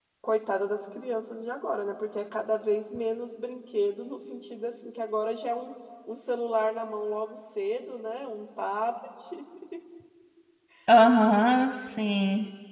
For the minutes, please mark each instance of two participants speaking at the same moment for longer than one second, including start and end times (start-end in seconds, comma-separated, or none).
none